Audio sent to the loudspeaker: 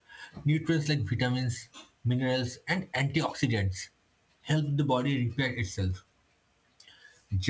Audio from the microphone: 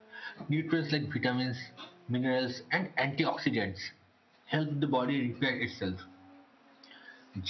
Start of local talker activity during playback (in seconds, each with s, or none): none